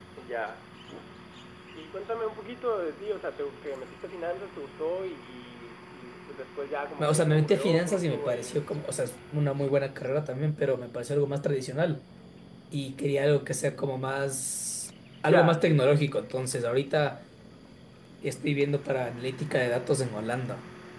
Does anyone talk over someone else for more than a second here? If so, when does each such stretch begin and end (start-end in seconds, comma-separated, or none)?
7.0-8.6